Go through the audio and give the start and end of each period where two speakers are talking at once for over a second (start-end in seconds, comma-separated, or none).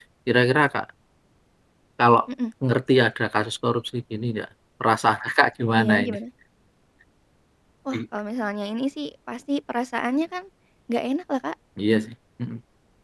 none